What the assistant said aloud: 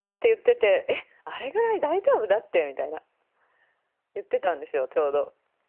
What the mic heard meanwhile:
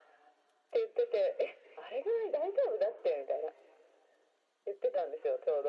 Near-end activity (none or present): none